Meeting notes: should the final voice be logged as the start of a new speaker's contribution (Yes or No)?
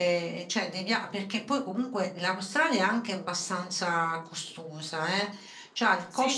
No